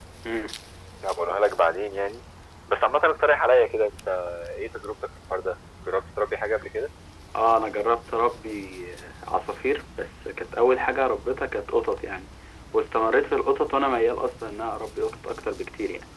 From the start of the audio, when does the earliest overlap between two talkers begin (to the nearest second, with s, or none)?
none